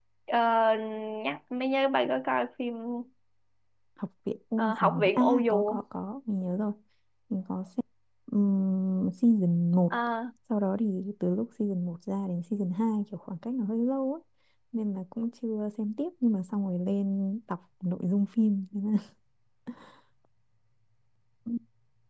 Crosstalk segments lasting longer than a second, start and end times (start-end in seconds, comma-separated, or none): 4.6-5.8